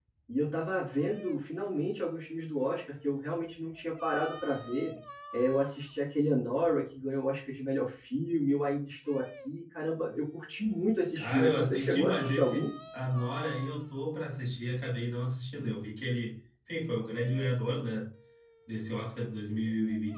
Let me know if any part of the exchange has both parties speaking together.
Yes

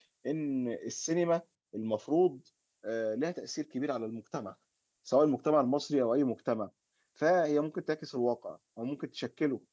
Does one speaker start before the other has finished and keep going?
No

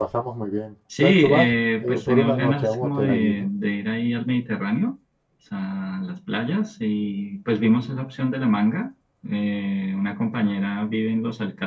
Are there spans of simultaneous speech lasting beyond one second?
Yes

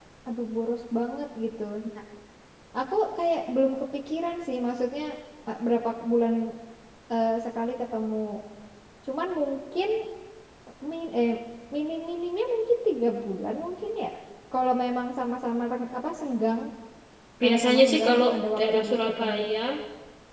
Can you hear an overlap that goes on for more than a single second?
Yes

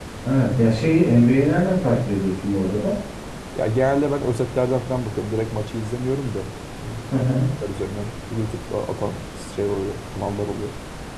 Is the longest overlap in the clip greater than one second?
No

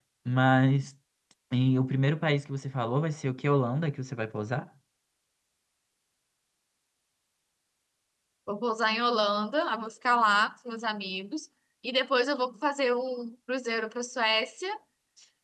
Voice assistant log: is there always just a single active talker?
Yes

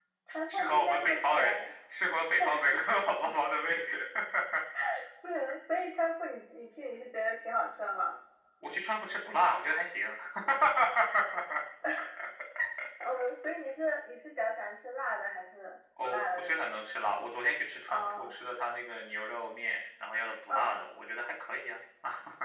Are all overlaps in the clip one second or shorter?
No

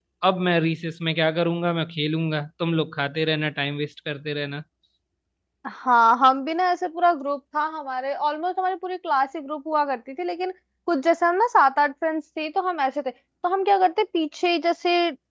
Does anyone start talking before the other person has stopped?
No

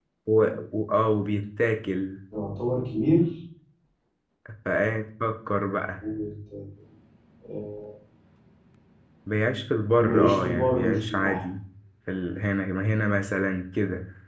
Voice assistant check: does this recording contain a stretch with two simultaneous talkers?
Yes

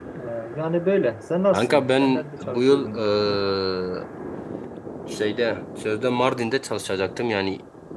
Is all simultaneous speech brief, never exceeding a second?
No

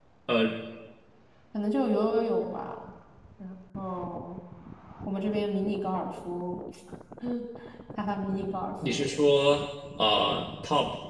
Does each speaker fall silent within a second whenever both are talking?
Yes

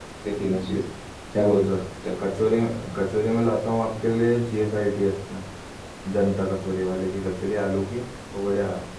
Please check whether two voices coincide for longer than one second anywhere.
No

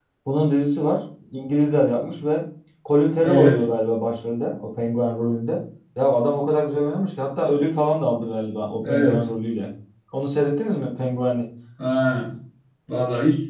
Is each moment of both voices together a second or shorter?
Yes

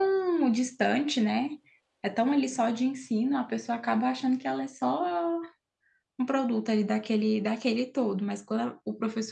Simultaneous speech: No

